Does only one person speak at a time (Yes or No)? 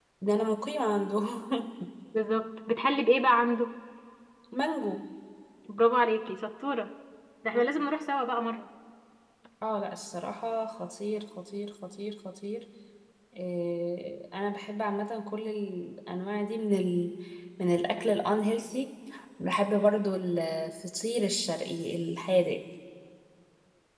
Yes